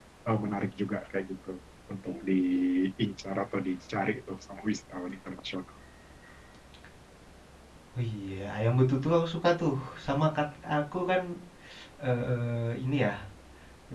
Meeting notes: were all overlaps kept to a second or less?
Yes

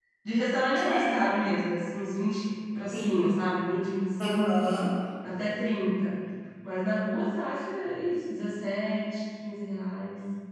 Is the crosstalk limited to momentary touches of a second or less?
Yes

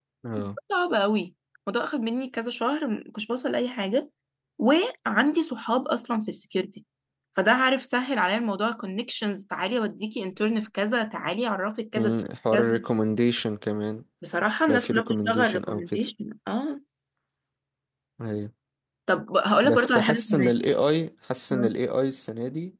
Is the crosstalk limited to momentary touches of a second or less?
No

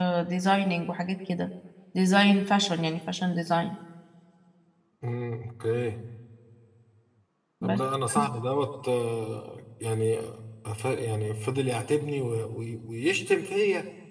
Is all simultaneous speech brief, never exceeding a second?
Yes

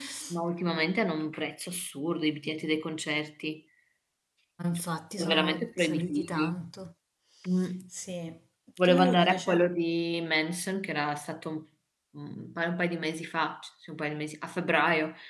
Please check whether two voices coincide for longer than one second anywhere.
Yes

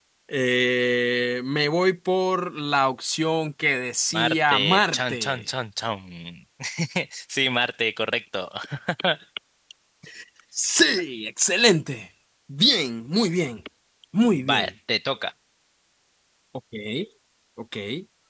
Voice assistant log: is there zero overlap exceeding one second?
No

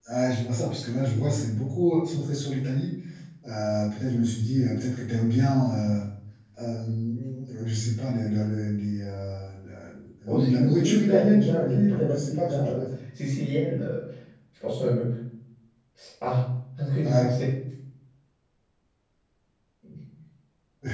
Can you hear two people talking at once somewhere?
Yes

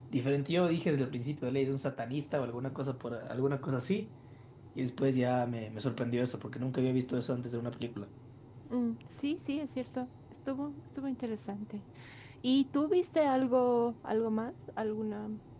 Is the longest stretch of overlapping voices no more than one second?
Yes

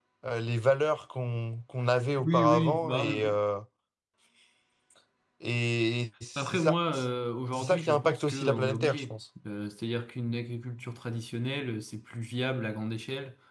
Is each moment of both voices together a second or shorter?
No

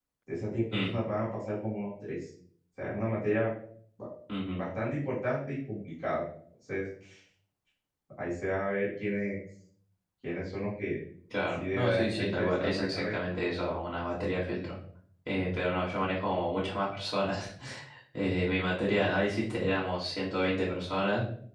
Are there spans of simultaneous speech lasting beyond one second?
Yes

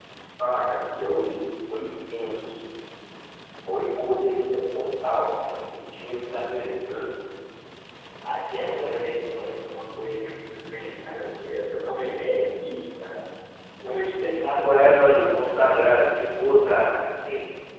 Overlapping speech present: Yes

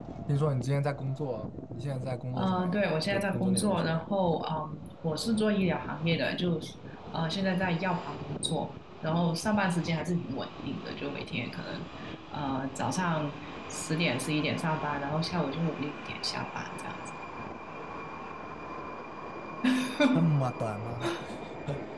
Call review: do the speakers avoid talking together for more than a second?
No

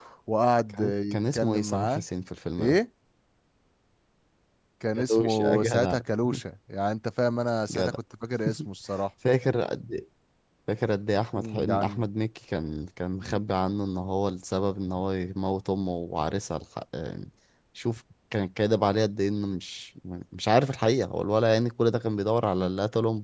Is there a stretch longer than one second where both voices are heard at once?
Yes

